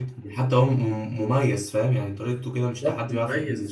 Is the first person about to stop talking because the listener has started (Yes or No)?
Yes